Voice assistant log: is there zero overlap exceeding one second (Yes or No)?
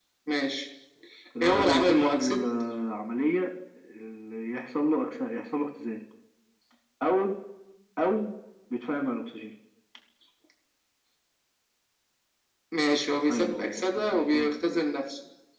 No